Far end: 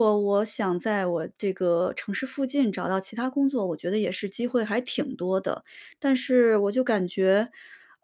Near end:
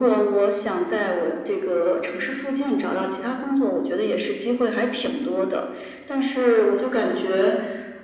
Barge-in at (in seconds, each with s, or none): none